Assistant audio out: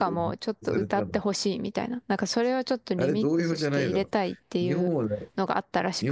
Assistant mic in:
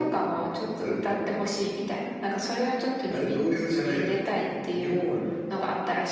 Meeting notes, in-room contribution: none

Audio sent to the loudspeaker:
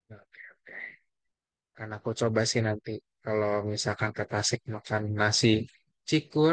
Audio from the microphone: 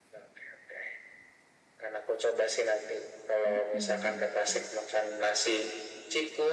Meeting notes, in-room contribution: present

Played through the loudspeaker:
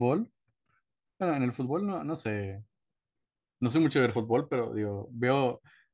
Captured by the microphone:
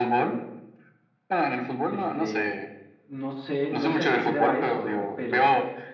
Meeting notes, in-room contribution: present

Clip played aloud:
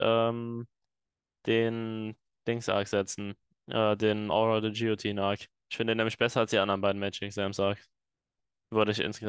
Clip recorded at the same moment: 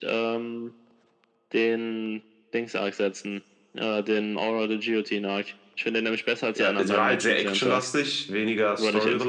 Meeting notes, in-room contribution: present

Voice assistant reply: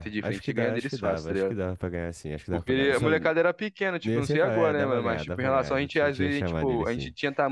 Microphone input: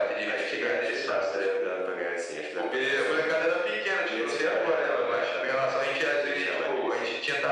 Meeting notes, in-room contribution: none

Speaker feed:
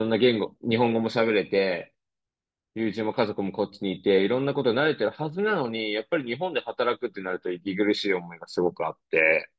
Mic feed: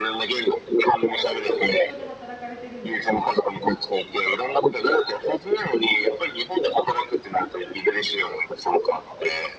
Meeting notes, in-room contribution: present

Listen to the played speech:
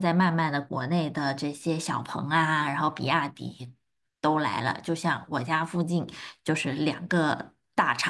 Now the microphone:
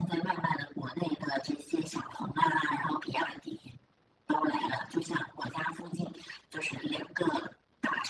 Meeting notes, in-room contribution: none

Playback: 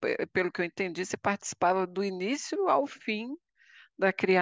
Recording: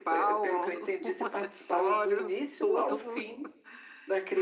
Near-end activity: present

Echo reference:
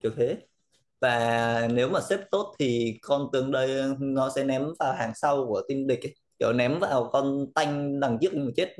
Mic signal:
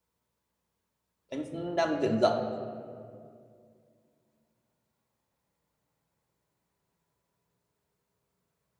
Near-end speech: present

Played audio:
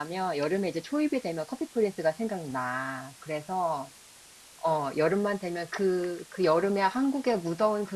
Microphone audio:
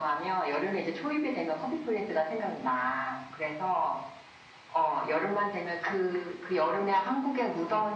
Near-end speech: none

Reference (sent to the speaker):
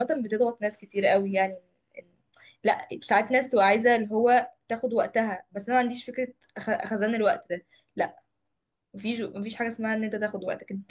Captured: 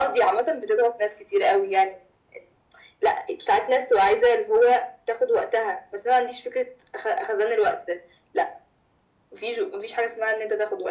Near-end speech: none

